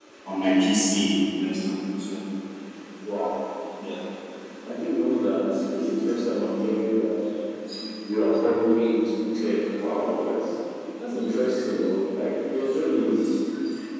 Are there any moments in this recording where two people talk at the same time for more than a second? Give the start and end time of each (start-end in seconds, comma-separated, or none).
none